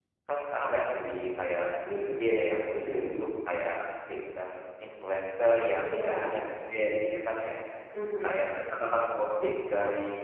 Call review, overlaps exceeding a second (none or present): none